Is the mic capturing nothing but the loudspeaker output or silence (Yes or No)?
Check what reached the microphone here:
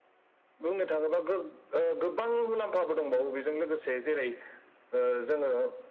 Yes